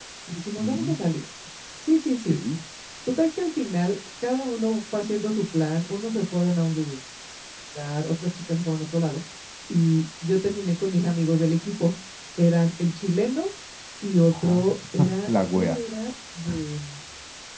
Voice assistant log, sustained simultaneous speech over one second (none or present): none